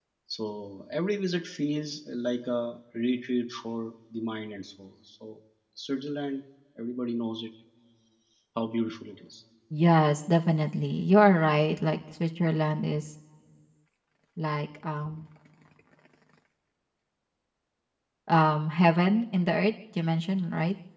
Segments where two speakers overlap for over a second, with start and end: none

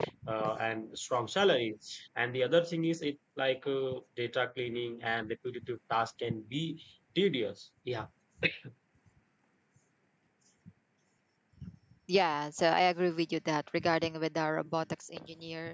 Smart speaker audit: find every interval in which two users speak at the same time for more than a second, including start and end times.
none

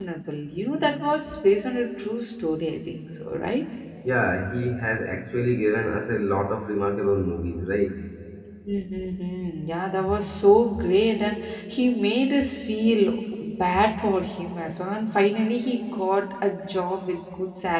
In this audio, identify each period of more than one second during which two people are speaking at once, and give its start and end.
none

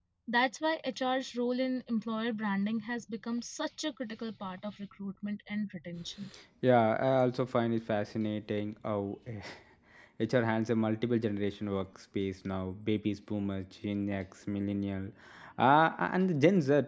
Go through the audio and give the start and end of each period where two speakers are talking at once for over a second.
none

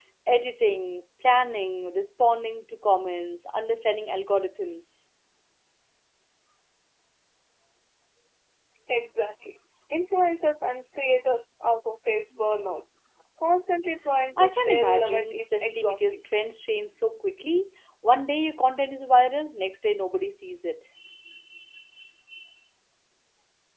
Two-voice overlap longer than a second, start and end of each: 14.4-16.0

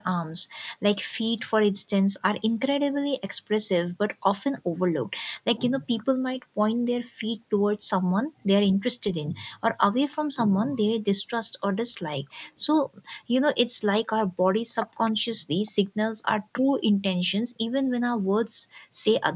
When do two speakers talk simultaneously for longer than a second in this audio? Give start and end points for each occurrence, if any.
none

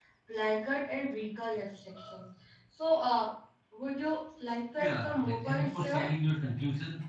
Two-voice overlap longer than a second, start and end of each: 4.7-6.1

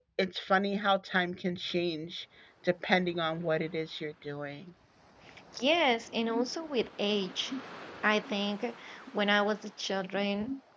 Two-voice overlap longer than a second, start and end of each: none

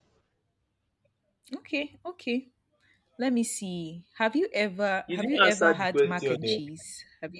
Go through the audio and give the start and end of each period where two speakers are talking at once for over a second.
5.1-6.6

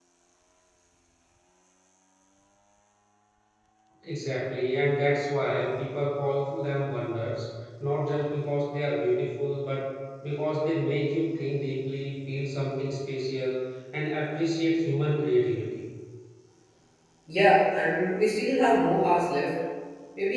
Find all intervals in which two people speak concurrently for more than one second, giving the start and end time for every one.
none

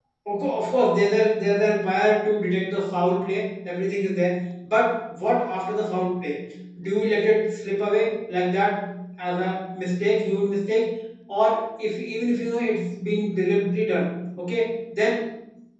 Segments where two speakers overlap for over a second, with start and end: none

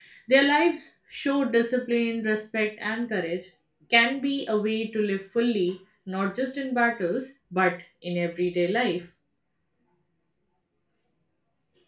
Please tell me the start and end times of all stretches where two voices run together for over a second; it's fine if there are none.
none

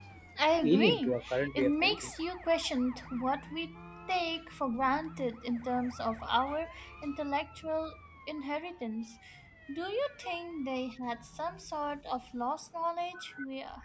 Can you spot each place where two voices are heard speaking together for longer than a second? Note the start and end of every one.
0.6-2.0

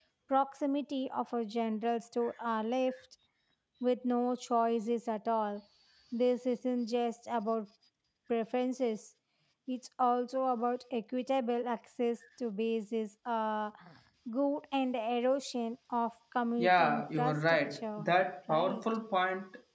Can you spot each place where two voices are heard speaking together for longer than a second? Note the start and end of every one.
16.6-18.1

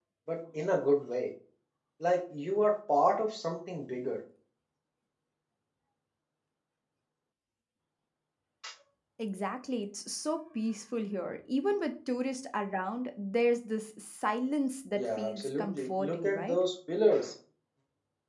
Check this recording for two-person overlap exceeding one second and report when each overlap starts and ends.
15.0-16.6

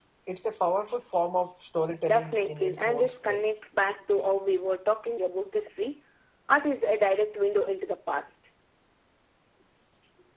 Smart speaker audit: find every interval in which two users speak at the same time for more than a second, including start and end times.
2.1-3.4

